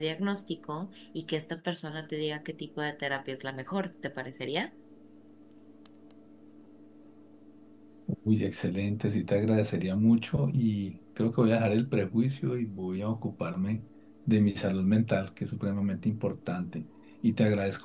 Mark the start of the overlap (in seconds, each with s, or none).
none